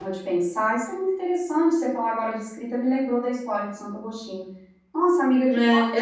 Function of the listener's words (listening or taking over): taking over